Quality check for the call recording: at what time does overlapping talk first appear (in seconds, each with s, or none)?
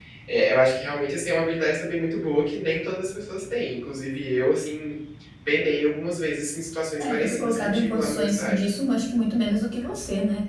7.0 s